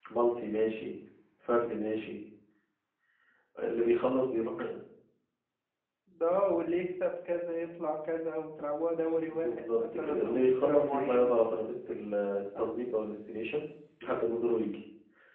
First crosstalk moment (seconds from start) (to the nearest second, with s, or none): 9 s